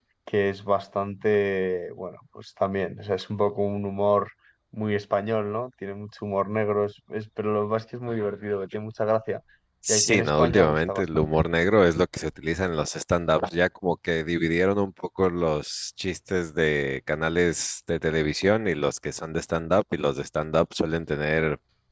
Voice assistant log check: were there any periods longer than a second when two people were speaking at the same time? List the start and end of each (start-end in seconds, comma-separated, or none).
9.9-11.4